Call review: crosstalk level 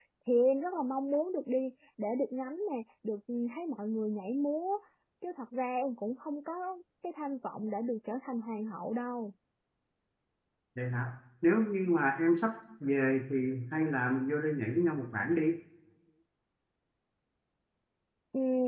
none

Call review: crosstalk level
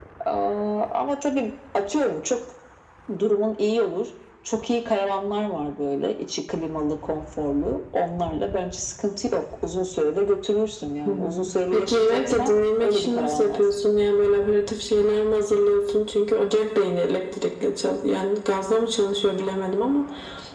present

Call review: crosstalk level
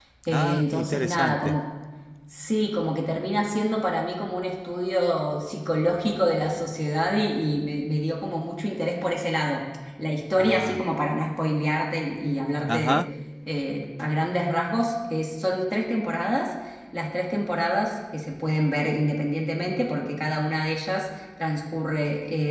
present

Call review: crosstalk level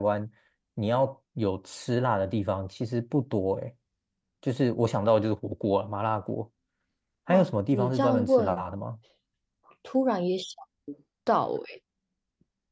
present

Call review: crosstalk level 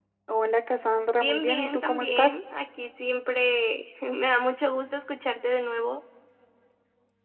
present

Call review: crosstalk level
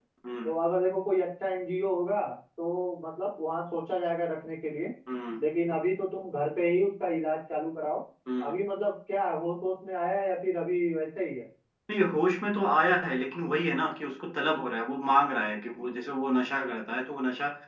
none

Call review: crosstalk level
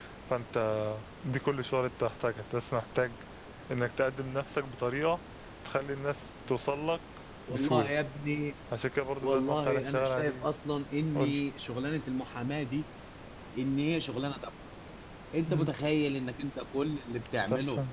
present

